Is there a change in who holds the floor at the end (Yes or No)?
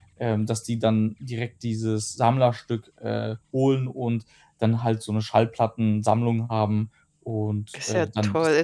Yes